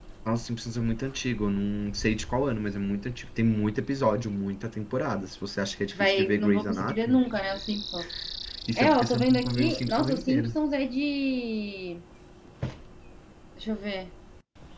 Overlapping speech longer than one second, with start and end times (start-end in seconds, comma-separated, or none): 6.0-7.2, 8.8-10.6